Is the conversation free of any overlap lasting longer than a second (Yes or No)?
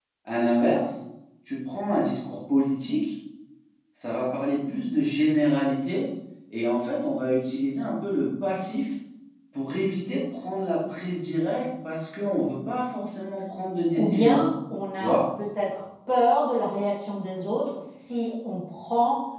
Yes